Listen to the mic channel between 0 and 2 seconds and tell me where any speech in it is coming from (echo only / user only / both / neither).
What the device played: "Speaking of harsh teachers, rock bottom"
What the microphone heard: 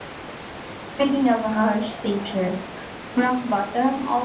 echo only